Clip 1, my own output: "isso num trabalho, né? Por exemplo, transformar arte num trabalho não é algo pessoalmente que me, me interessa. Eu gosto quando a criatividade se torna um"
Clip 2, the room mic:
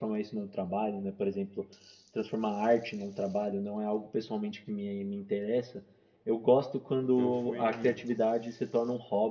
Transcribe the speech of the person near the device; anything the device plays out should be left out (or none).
Então eu fui. hum,